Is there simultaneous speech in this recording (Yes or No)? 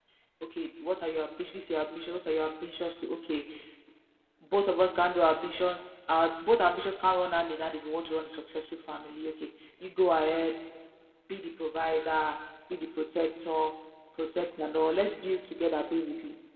No